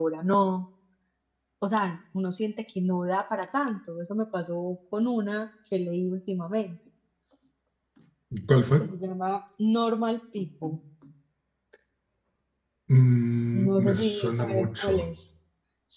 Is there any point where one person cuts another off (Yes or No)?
Yes